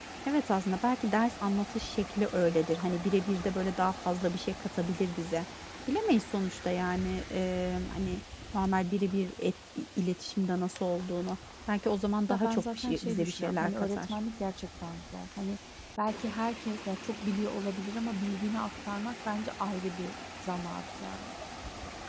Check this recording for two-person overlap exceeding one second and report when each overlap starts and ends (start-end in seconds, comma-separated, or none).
12.3-14.2